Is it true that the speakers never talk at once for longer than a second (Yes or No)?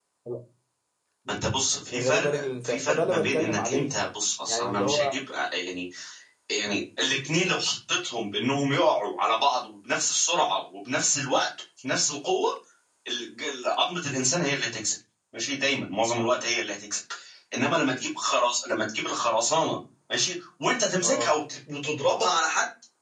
No